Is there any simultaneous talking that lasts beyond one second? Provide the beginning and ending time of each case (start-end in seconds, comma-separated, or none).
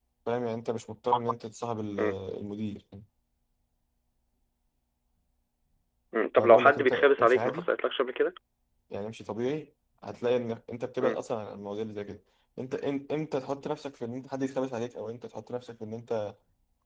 6.4-7.6